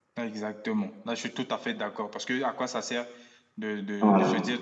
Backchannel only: Yes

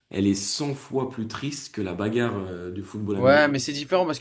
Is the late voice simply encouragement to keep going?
No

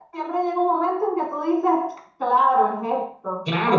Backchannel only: No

